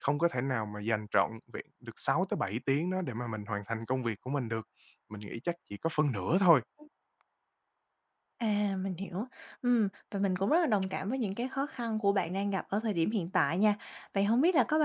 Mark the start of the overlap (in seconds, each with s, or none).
none